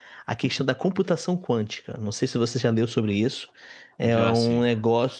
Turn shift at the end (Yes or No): No